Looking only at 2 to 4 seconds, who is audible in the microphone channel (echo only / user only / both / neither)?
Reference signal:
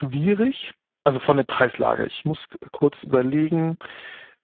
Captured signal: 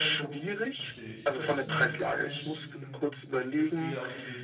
both